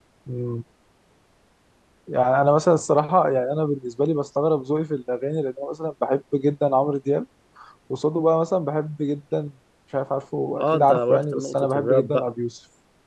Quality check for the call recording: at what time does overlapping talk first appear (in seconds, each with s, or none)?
10.6 s